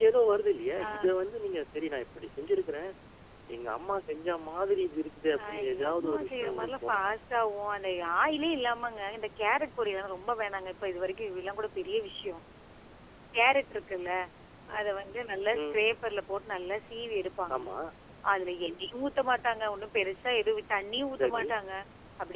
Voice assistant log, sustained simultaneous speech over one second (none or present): present